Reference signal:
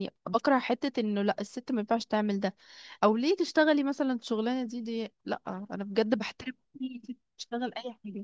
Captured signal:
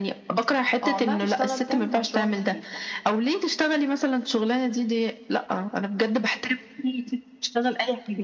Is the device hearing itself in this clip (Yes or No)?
Yes